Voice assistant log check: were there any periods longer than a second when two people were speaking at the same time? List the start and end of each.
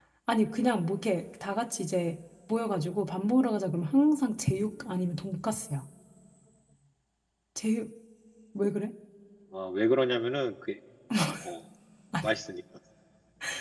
none

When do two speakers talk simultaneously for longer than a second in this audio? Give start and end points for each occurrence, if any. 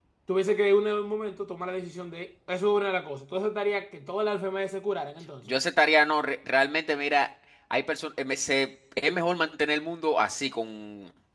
none

